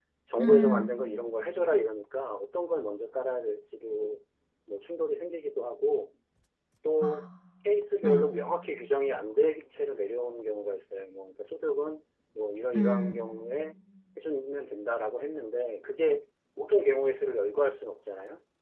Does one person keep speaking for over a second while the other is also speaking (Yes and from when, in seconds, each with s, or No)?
No